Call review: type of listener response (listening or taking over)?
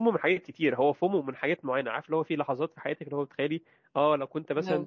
listening